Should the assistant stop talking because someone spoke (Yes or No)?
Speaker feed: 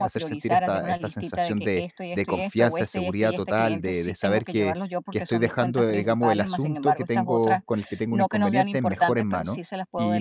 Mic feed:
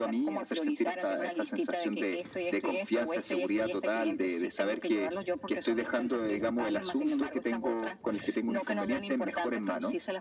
No